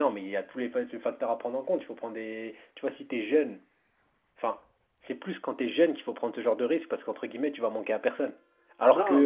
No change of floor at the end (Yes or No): Yes